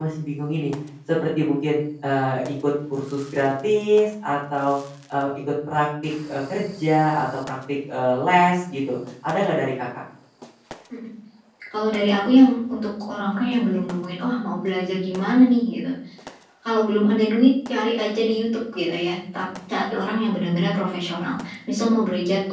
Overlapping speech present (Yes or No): No